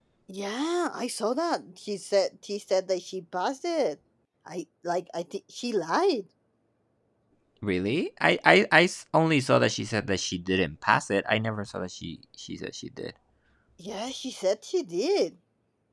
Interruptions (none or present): none